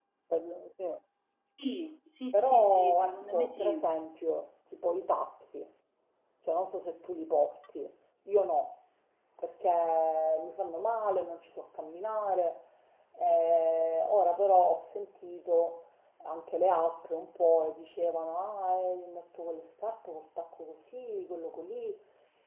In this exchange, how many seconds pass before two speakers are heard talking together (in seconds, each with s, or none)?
2.3 s